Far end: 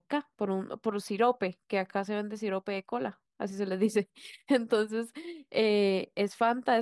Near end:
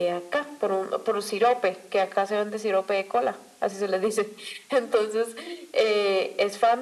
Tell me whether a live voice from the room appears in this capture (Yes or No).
No